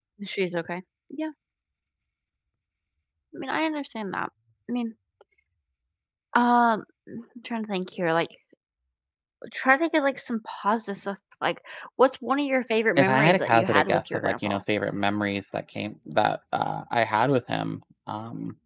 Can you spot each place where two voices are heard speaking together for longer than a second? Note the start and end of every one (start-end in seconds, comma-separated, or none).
12.9-14.6